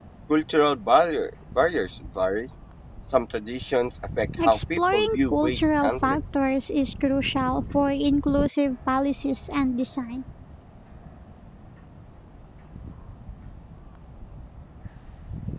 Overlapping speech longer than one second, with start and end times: 4.4-6.2

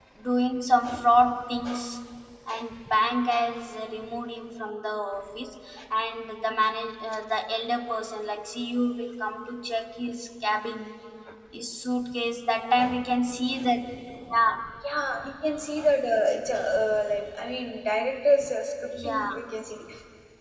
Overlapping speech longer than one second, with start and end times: none

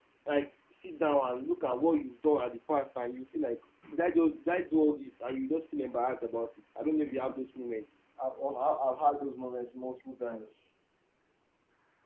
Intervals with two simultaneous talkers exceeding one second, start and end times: none

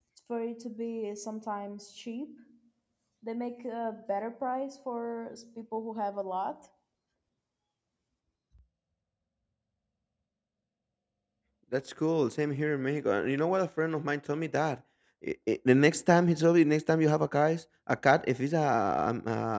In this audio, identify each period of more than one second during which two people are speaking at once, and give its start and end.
none

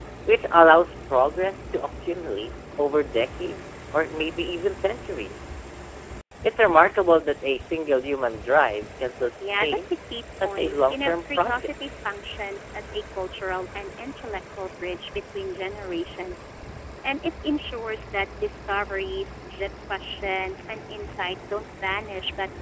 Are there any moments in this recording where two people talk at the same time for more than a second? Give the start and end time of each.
10.4-11.7

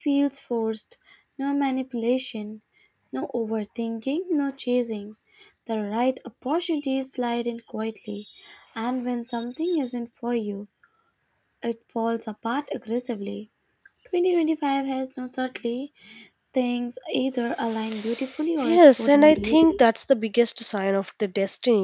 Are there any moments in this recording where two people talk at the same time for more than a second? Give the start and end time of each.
18.6-19.8

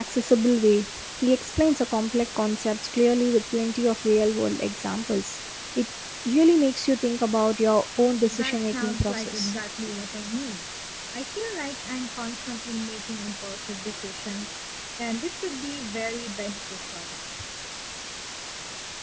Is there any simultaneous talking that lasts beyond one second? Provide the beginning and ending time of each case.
8.3-9.5

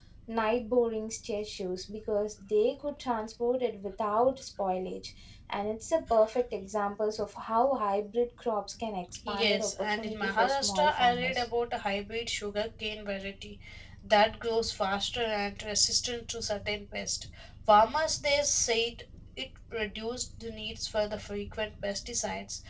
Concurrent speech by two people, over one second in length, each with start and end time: 9.3-11.5

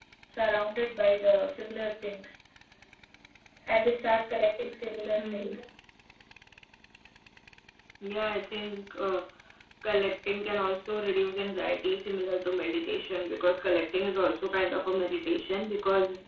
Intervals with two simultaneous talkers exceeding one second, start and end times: none

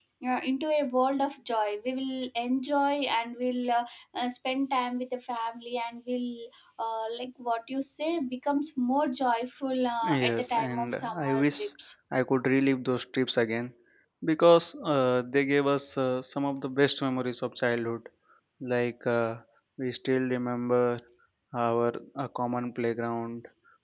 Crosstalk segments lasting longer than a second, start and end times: 10.2-11.6

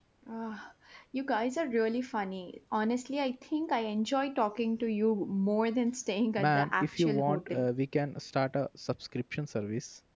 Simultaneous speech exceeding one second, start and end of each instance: 6.4-7.6

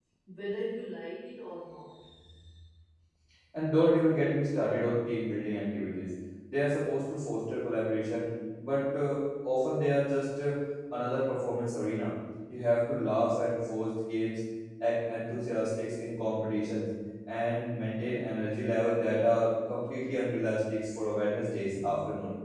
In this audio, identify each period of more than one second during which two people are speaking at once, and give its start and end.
none

